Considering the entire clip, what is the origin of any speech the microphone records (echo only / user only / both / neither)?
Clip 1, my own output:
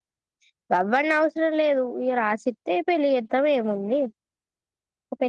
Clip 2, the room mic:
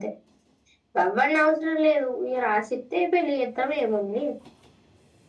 echo only